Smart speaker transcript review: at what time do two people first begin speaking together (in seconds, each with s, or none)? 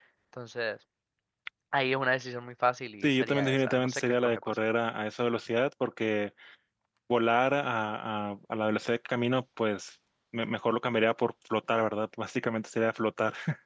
3.0 s